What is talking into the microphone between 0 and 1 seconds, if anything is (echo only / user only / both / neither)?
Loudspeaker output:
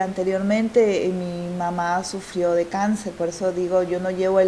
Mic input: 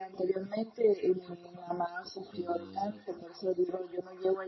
echo only